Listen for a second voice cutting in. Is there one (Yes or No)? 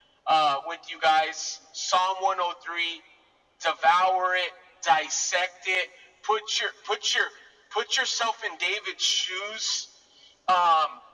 No